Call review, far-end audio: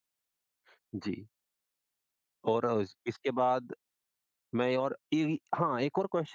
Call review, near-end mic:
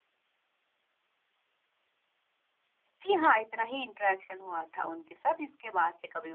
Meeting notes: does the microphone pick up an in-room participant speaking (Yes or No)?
Yes